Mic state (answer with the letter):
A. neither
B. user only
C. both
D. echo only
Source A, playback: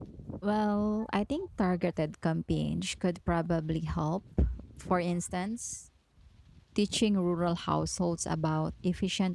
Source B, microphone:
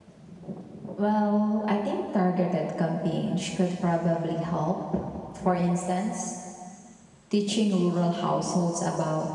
D